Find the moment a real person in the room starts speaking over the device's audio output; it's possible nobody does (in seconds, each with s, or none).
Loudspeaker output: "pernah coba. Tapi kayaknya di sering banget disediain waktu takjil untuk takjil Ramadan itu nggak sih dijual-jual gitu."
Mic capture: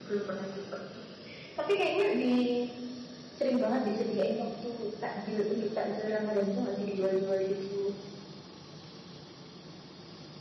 none